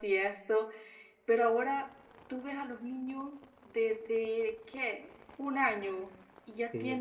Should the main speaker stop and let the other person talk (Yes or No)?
No